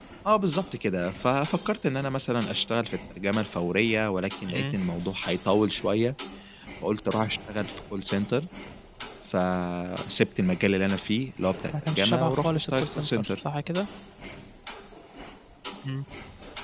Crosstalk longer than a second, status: present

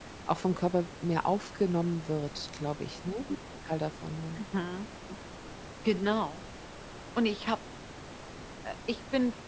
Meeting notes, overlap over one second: none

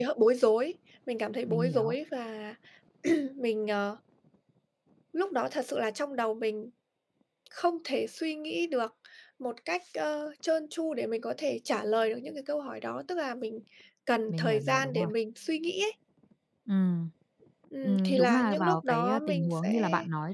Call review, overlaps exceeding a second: present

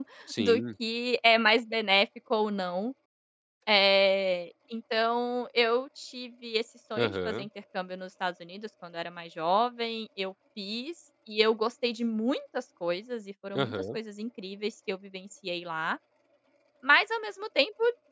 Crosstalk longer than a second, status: none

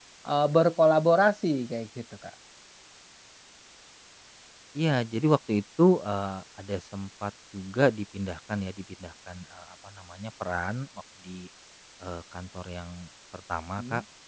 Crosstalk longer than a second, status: none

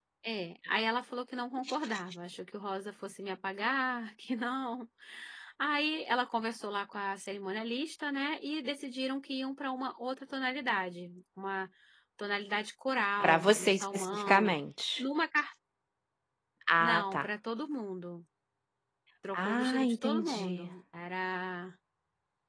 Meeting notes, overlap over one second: present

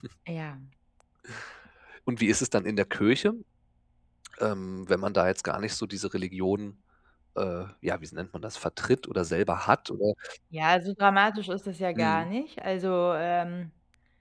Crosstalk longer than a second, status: none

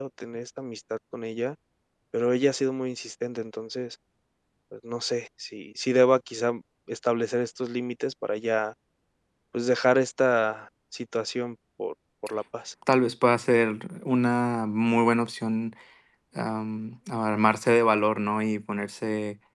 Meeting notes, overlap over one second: none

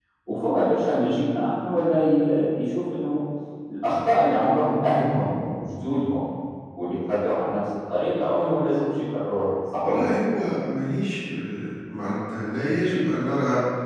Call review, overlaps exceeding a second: none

